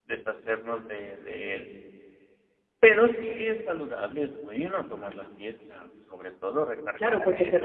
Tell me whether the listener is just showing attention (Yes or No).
No